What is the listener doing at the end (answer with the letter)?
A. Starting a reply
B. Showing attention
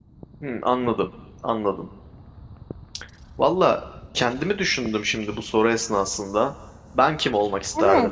A